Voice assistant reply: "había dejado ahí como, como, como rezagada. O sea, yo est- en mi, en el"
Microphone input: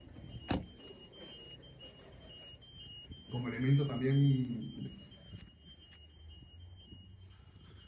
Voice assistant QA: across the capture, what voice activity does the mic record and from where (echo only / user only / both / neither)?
user only